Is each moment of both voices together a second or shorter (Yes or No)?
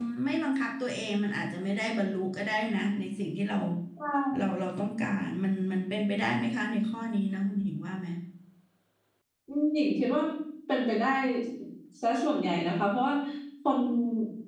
Yes